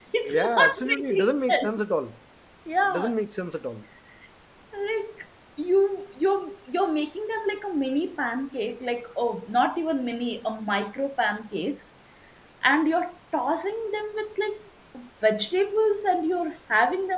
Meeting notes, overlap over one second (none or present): present